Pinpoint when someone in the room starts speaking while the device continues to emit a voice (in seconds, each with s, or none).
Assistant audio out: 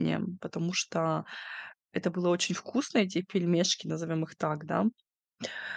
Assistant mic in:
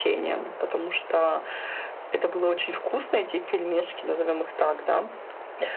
none